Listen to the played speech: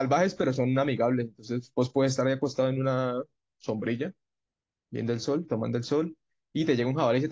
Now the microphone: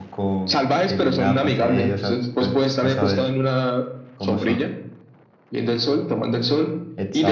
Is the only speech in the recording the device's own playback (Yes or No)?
No